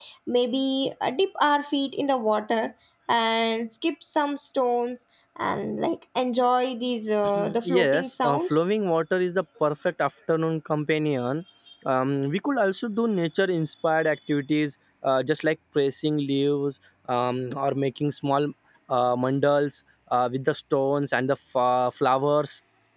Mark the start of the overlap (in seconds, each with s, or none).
7.2 s